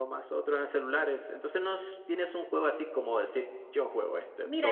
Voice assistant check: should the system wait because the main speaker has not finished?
No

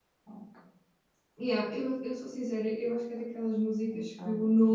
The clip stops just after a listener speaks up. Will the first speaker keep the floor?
Yes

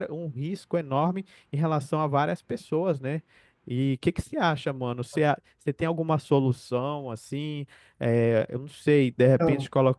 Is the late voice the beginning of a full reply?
No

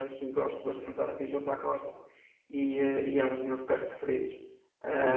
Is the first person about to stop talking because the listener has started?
Yes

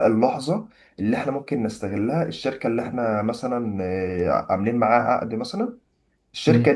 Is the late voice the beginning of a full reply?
No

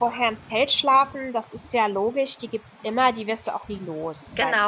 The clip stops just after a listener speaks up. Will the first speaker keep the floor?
No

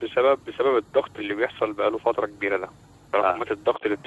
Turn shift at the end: No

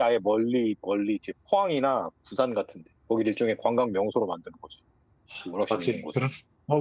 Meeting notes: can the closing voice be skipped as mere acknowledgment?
No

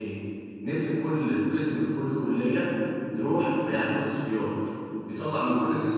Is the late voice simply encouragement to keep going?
Yes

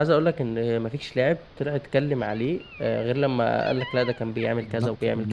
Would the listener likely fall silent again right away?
No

